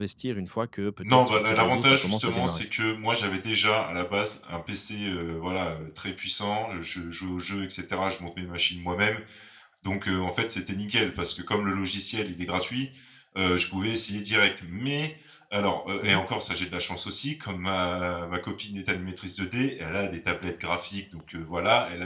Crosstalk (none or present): present